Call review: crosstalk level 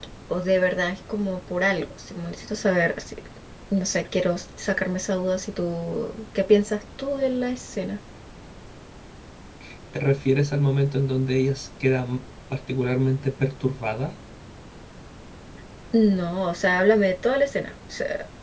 none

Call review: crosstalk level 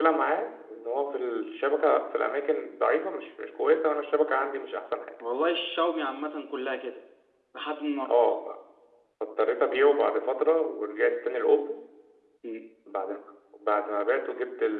none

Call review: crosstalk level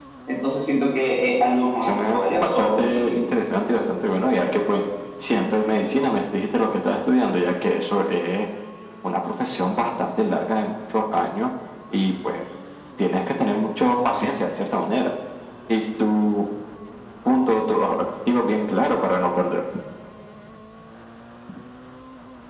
present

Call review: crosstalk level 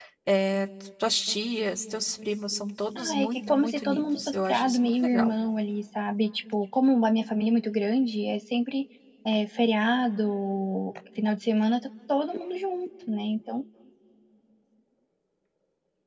present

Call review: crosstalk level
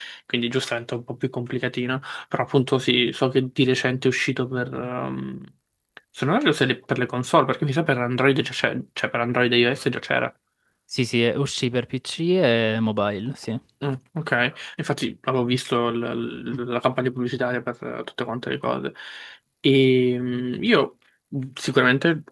none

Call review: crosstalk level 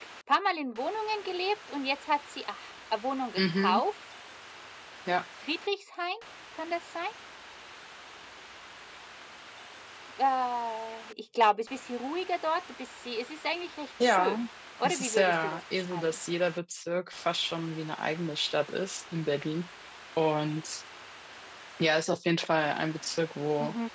present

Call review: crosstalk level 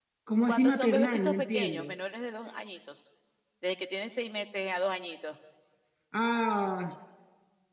present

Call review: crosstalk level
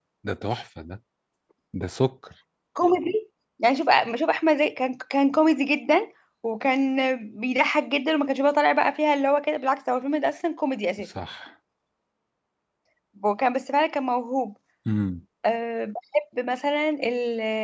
none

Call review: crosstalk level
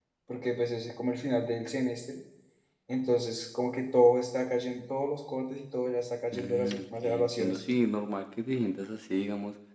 present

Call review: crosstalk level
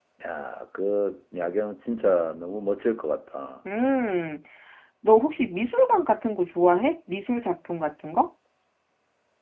none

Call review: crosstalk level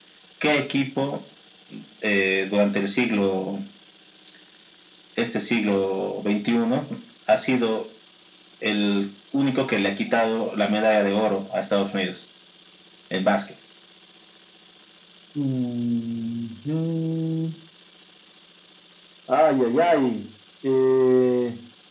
none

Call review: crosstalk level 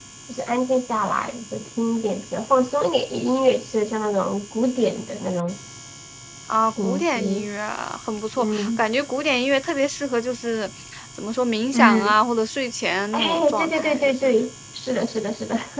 present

